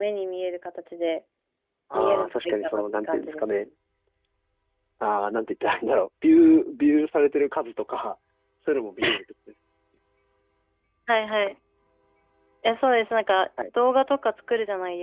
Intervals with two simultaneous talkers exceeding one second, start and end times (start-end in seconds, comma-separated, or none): 1.9-3.6